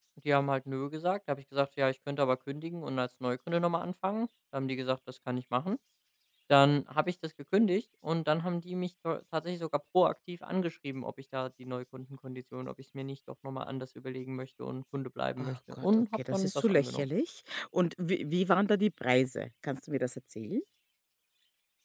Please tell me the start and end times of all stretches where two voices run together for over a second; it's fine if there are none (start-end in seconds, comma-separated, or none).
15.4-17.1